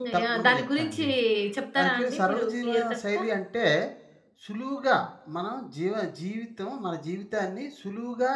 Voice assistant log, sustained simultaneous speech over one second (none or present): present